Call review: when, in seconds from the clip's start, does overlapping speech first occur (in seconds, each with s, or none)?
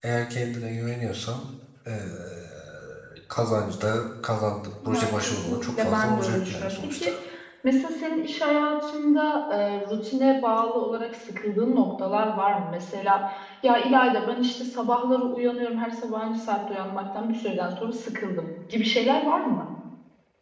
4.8 s